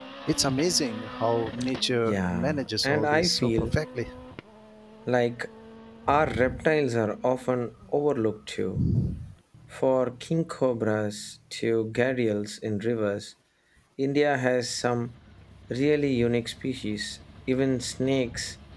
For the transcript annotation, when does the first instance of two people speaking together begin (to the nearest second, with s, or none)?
2 s